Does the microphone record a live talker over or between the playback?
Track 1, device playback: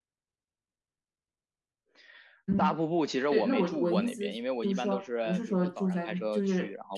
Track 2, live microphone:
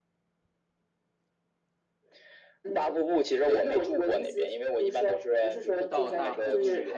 Yes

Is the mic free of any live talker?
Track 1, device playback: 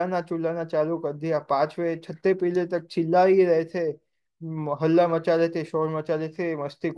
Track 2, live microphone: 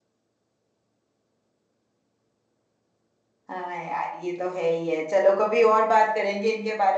No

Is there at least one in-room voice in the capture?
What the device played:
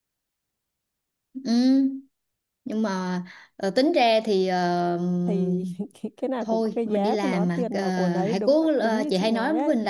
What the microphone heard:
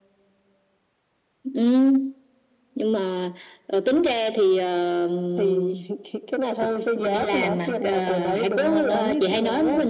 Yes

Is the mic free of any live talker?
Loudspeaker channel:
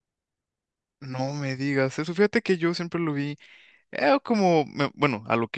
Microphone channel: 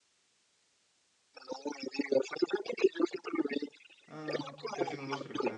No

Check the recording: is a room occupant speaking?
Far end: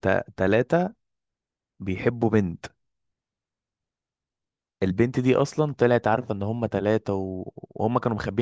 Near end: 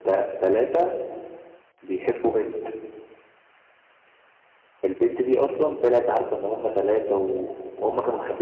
No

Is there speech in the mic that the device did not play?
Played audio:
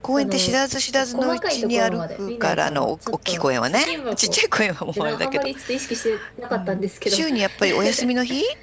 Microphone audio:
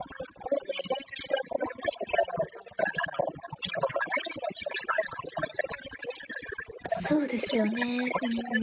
Yes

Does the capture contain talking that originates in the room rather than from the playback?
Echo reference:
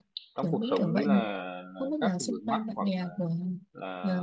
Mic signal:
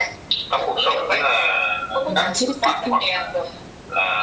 Yes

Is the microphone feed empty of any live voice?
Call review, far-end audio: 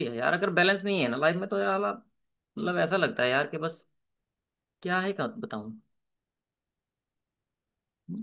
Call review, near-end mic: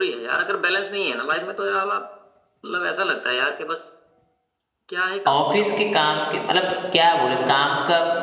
No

